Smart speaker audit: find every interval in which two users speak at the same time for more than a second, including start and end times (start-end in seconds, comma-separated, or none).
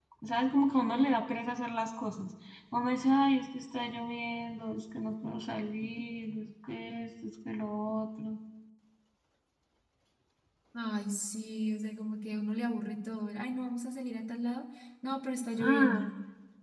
none